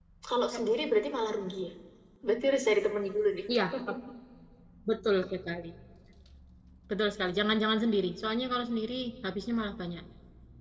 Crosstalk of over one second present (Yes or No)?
No